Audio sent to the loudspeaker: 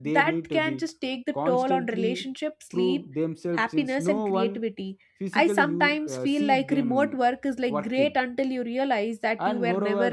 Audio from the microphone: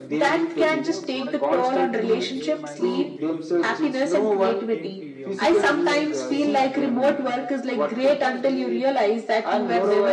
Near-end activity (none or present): present